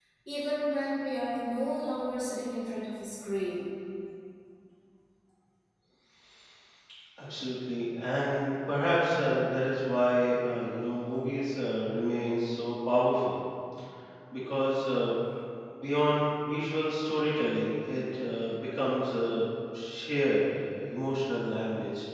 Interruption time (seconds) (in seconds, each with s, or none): none